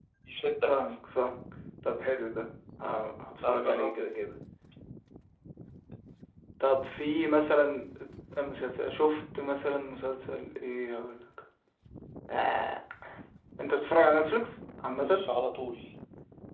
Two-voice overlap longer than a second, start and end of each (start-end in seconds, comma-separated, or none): none